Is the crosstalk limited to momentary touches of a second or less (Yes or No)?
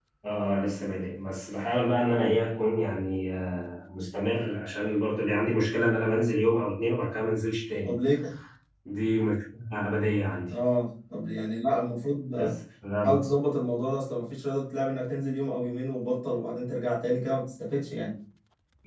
Yes